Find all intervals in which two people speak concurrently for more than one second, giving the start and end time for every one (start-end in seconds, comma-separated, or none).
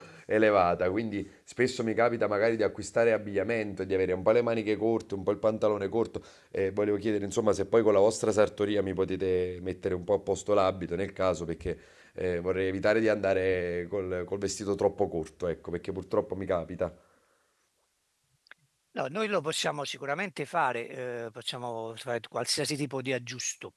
none